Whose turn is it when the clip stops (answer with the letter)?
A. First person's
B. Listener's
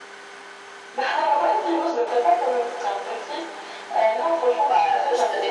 B